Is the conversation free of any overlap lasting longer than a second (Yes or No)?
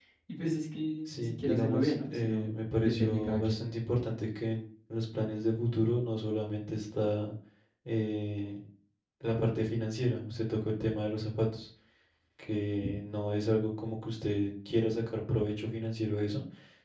No